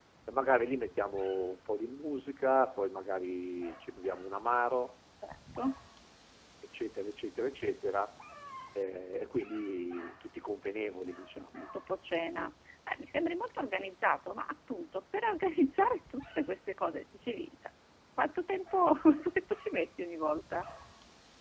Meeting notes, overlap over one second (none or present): none